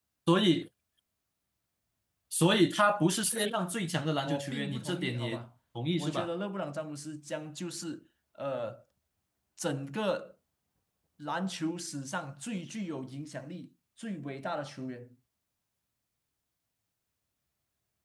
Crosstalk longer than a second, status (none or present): present